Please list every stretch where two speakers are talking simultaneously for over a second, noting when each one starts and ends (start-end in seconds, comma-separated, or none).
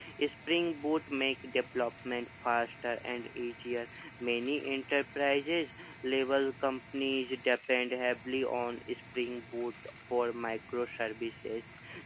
none